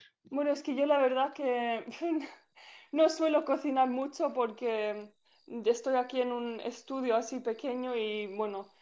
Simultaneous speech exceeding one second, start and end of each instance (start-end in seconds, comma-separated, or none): none